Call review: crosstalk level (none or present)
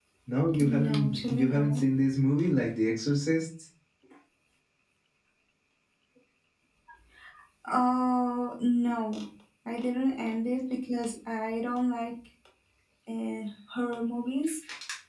present